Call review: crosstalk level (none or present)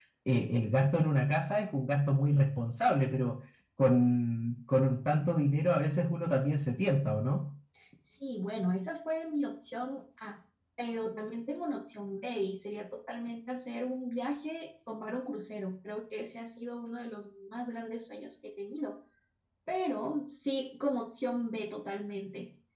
none